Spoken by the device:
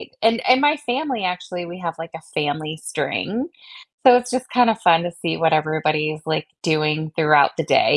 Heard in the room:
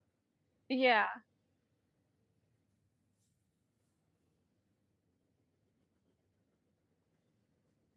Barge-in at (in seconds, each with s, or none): 0.7 s